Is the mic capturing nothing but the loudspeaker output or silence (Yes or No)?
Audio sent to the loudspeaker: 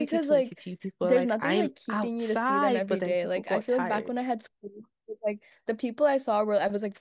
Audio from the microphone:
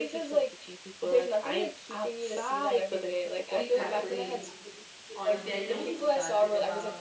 No